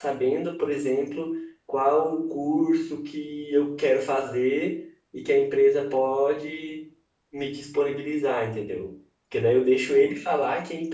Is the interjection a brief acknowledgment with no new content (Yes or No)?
Yes